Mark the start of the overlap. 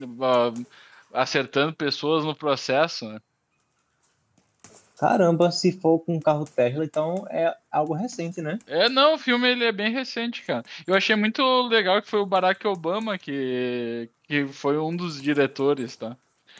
none

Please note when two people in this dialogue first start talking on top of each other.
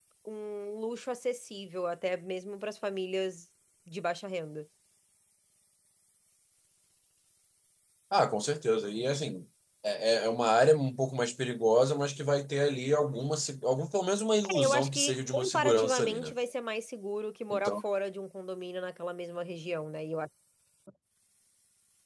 15 s

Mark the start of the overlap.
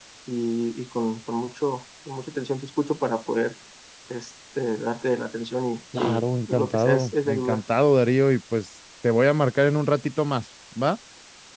6 s

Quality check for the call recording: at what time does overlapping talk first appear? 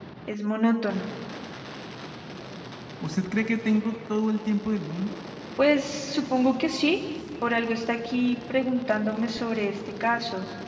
none

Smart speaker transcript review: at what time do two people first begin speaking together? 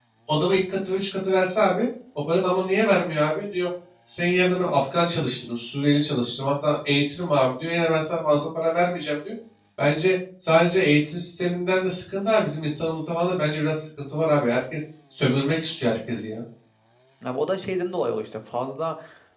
none

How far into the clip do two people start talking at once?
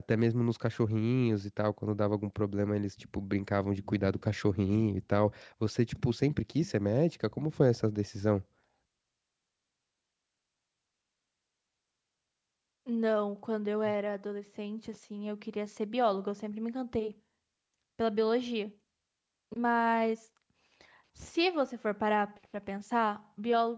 none

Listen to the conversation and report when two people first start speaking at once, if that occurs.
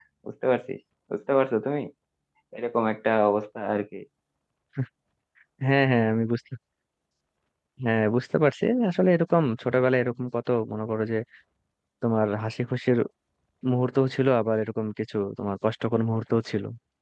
none

